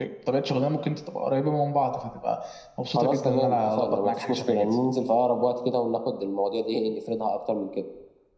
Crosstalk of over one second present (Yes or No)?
Yes